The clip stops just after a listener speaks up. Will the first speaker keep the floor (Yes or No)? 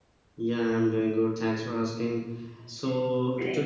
Yes